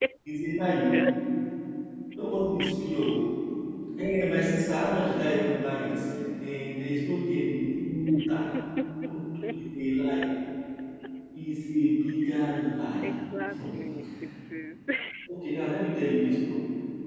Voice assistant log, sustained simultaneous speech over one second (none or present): none